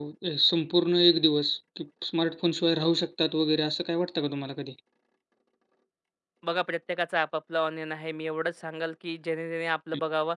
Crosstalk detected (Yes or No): No